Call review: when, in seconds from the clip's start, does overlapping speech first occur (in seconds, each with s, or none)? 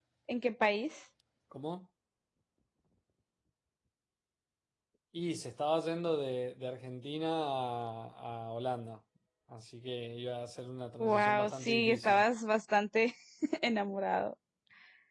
11.0 s